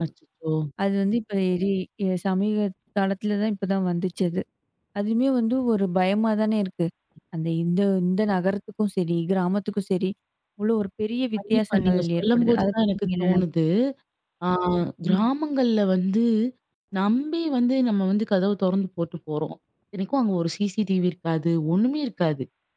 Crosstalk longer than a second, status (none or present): present